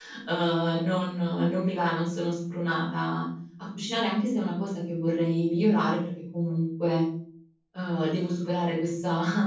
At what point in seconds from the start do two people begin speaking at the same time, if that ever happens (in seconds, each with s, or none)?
none